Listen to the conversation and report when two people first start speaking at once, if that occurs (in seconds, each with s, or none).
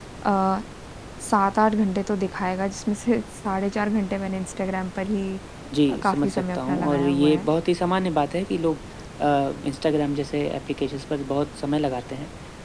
5.9 s